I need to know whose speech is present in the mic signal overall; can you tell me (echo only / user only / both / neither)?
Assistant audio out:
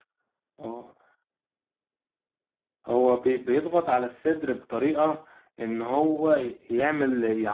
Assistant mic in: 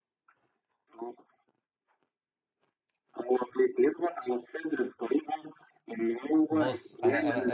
both